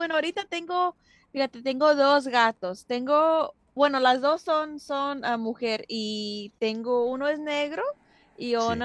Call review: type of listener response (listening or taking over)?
listening